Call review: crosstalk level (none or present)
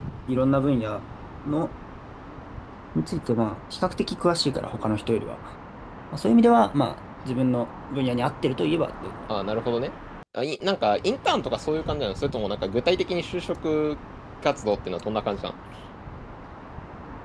none